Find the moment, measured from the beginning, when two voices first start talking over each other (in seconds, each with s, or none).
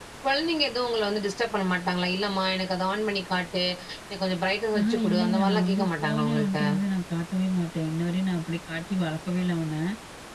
4.8 s